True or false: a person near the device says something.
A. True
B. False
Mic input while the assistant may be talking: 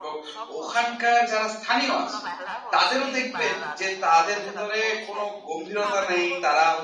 A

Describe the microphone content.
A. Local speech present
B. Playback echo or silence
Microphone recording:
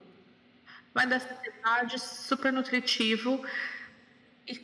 B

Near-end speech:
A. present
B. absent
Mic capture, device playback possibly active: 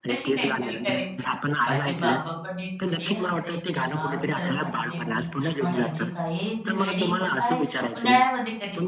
A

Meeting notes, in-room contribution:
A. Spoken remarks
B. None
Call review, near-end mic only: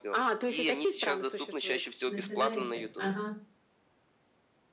A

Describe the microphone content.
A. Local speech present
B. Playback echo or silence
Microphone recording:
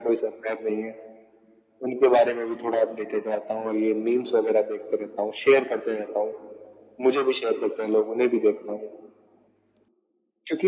B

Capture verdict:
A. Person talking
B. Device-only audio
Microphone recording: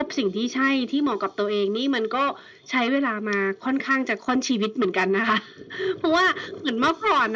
B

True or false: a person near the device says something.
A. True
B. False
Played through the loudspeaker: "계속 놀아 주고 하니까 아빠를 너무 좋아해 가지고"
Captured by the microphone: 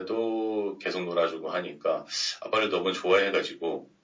B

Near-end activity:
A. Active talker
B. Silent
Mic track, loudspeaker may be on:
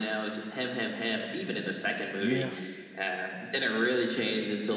A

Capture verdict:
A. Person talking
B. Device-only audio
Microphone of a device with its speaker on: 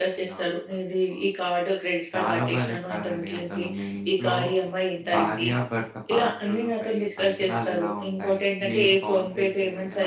A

